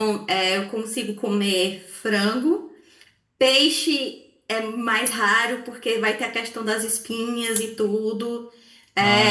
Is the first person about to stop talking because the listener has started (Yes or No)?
No